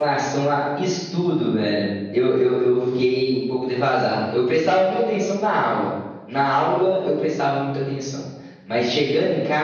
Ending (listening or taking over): listening